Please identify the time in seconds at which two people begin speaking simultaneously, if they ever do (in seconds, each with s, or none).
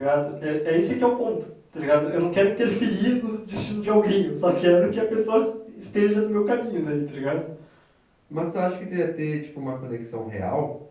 none